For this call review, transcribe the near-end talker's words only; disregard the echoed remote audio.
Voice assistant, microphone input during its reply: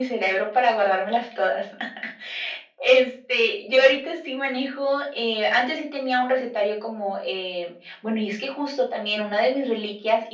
none

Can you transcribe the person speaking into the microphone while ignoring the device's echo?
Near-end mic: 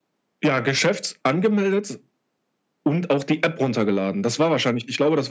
none

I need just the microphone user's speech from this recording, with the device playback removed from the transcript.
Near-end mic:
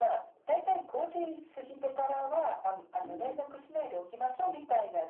うーん。

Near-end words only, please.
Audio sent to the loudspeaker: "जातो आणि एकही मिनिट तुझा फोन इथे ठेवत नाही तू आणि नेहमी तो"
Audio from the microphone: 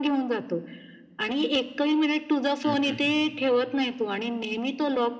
हं, हं, हं.

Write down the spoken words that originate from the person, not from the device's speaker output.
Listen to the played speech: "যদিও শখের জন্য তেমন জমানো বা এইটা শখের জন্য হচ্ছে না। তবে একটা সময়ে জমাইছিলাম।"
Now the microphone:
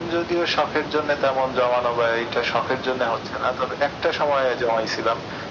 none

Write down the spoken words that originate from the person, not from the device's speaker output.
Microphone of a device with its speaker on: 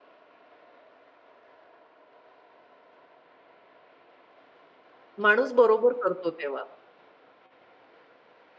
माणूस बरोबर करतो तेव्हा.

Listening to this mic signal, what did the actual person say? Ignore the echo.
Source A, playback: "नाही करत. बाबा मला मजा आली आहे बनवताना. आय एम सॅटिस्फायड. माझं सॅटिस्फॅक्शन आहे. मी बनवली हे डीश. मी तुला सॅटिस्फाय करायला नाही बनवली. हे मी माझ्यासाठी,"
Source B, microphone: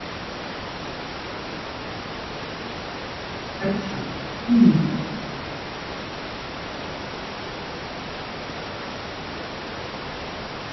अच्छा, हं.

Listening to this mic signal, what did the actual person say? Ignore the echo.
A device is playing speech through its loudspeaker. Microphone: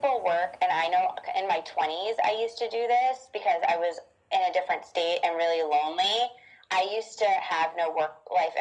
none

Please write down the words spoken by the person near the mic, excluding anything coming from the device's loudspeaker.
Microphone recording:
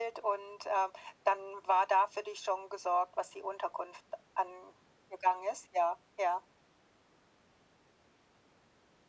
none

